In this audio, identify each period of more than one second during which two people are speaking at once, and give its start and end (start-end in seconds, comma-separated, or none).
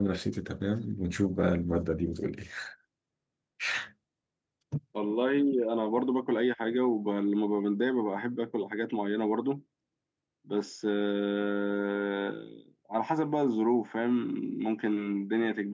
none